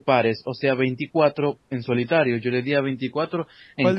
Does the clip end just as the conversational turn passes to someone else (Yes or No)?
Yes